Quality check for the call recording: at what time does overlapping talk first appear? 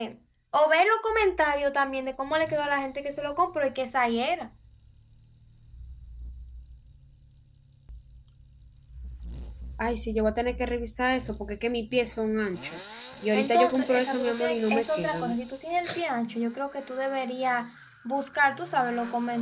13 s

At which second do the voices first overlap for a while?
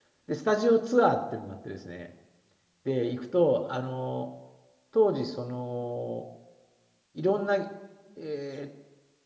none

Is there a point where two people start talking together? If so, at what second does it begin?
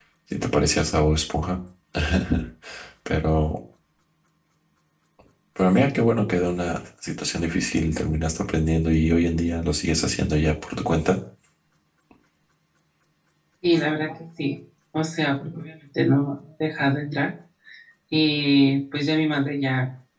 none

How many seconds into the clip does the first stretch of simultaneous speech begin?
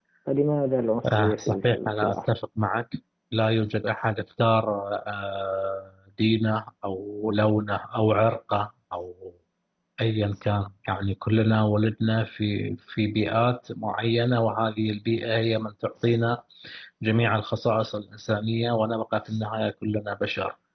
1 s

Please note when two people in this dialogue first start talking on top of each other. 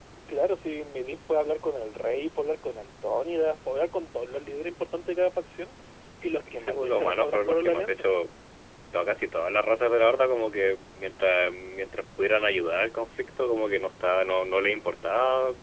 7 s

